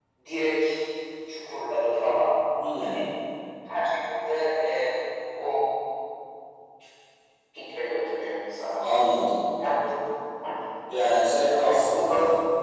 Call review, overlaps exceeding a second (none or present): none